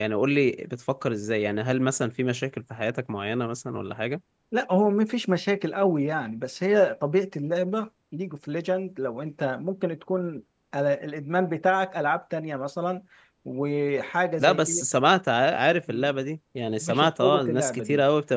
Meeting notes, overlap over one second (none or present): present